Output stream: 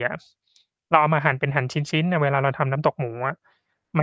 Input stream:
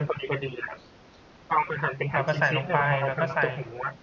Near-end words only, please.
เราก็ใส่ลงไป เราก็ใส่

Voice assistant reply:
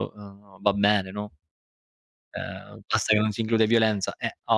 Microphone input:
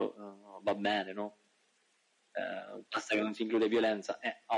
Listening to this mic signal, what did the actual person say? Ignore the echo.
none

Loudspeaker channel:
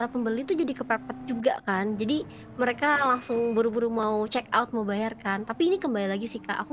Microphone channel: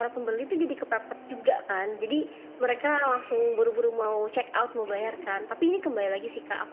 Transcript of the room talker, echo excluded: Mhm mhm.

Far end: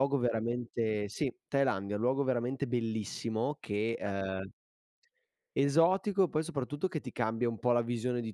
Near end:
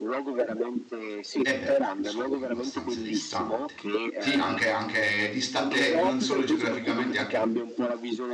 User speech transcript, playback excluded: Eh beh, insomma, abbastanza distante. Sì, anche anche distante non solo geograficamente anche

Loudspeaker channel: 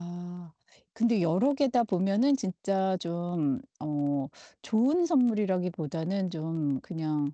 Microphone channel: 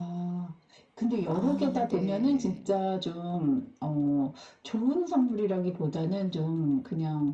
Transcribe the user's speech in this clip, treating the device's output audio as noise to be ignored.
아 네.

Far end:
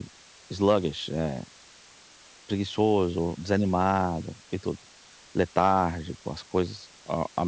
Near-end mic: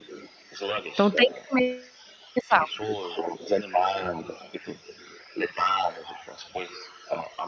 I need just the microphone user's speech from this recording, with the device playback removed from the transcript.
Então, tem que comer sal?

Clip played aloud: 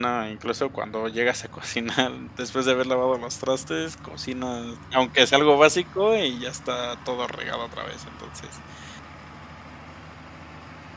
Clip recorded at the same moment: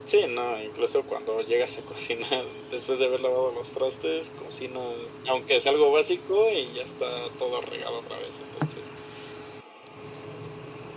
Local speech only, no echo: none

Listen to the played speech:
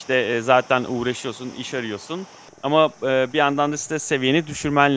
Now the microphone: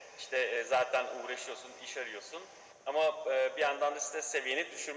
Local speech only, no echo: none

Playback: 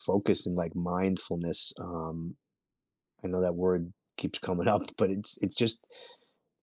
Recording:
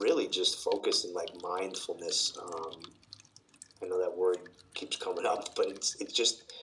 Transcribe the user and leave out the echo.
none

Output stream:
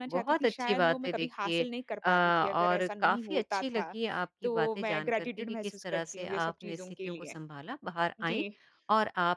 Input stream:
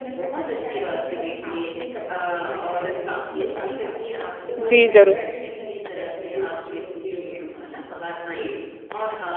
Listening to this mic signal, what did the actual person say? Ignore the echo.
जी, ज़रूर।

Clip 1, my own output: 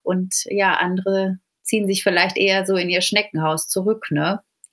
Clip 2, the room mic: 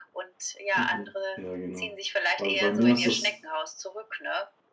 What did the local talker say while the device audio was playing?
Mhm, ja genau. B also, bei mir ist es

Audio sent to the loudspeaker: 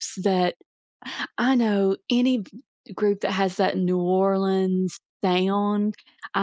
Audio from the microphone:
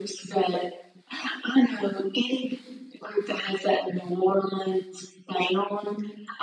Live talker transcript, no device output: none

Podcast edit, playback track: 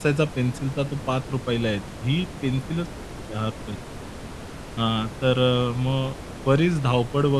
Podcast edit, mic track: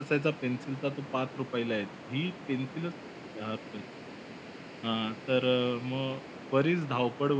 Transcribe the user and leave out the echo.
none

